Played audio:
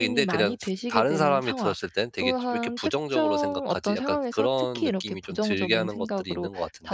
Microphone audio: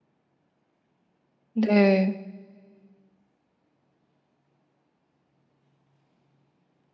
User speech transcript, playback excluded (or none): 네.